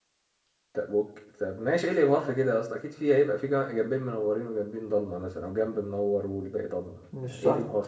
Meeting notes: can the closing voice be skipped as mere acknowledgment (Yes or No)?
No